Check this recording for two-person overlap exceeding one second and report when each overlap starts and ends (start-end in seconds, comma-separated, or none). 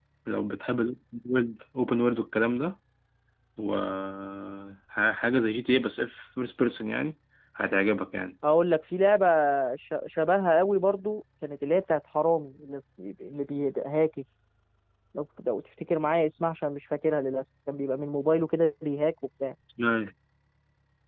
none